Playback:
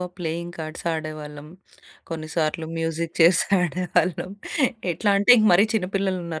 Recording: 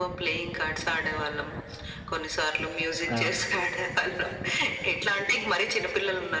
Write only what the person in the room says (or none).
ఆ!